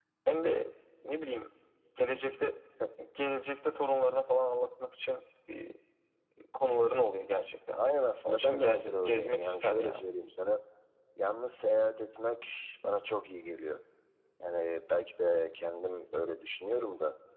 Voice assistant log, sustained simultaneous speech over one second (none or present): present